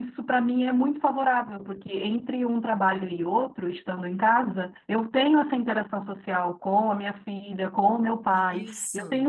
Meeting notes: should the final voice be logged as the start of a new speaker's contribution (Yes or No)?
No